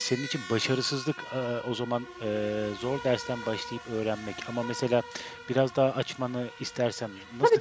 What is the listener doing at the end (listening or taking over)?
taking over